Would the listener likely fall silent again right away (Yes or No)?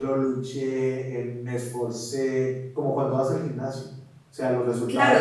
No